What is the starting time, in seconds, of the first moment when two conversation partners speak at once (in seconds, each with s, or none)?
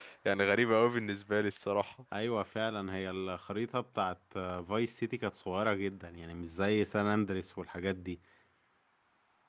none